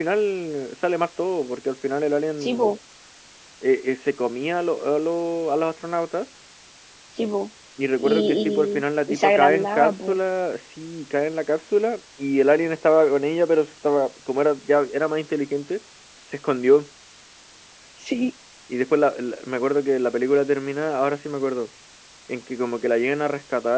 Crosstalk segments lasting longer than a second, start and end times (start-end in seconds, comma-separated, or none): 7.9-10.2